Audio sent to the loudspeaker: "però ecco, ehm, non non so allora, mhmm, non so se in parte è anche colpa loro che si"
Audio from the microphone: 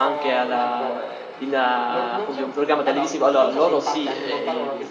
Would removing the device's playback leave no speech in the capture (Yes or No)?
No